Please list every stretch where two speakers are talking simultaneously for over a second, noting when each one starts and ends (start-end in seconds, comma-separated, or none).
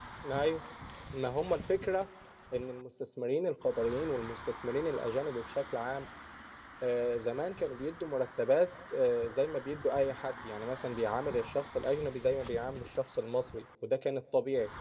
none